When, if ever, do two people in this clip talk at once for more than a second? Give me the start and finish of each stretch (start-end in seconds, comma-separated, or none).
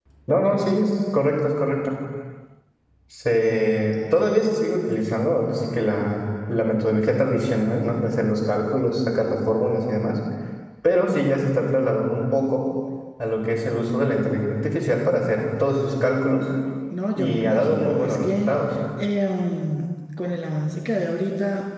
17.2-18.5